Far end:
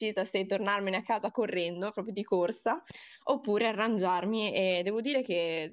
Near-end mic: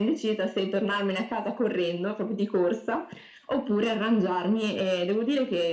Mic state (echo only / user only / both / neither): echo only